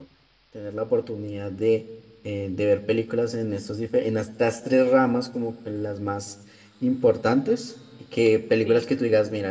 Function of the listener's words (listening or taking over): listening